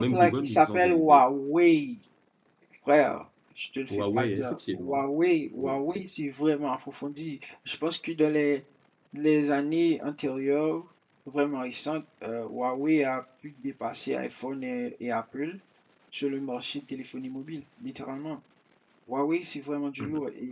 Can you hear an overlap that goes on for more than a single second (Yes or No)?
Yes